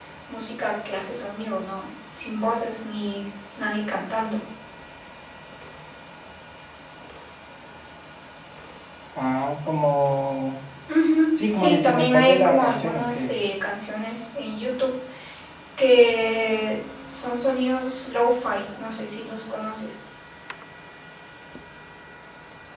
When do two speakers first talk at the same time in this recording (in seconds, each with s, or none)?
11.5 s